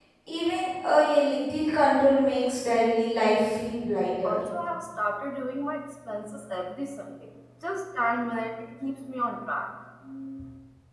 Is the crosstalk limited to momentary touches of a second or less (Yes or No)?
Yes